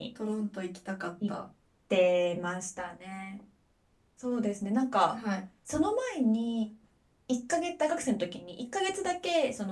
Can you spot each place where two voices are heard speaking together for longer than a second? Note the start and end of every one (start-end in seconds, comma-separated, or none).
none